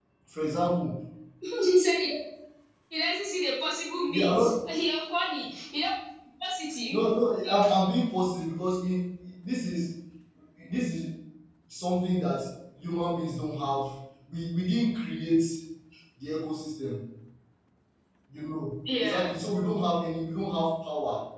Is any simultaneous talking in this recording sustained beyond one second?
No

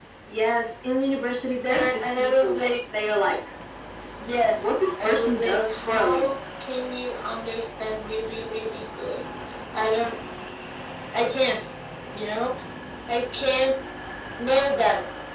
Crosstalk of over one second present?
Yes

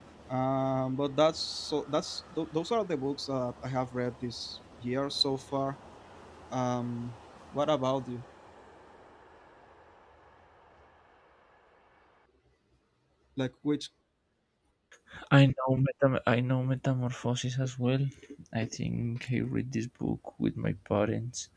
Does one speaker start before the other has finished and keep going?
No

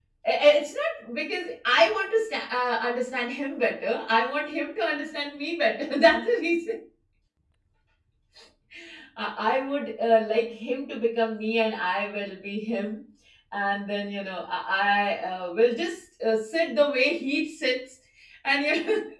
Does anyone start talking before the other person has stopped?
No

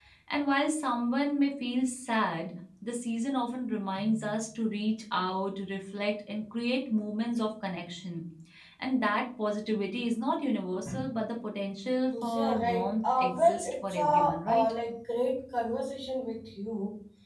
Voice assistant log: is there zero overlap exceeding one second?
No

